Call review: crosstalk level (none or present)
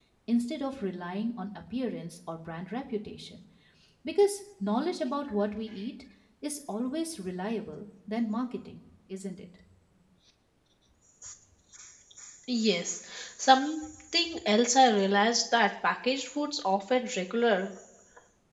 none